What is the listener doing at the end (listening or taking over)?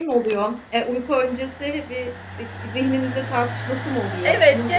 taking over